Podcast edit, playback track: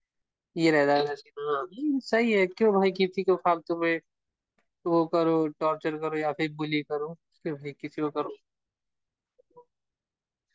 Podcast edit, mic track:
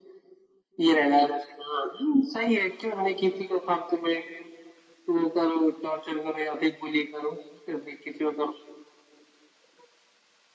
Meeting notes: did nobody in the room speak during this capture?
Yes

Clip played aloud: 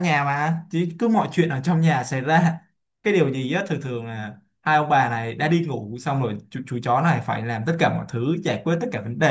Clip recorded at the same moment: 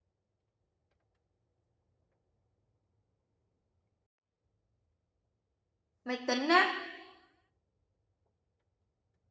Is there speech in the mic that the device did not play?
Yes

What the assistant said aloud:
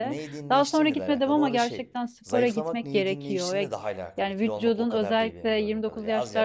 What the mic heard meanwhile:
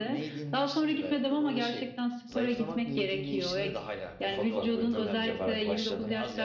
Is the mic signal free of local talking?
No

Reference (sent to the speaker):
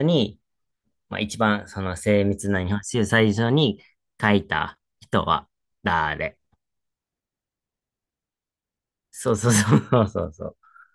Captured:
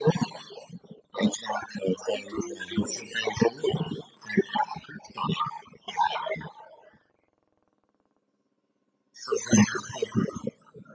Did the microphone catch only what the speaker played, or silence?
No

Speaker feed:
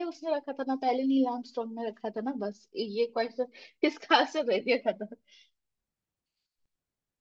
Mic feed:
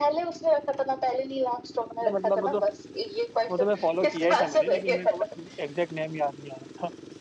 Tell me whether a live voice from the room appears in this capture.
Yes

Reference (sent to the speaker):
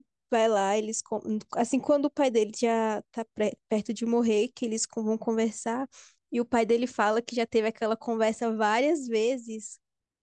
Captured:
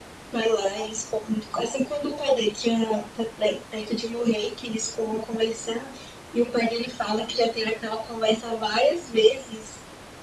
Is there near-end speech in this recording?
No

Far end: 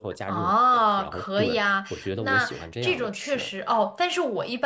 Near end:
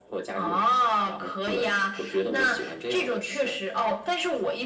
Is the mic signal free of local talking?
Yes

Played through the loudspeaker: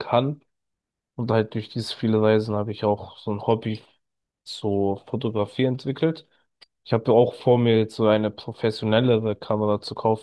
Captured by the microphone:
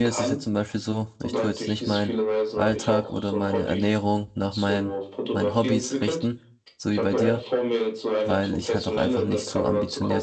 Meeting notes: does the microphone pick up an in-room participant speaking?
Yes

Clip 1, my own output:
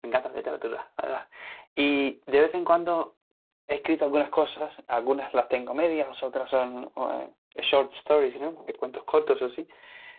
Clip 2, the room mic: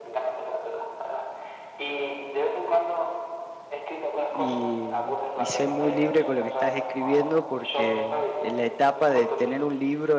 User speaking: Yes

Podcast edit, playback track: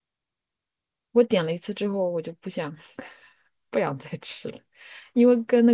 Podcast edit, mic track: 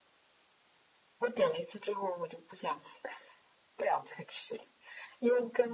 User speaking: No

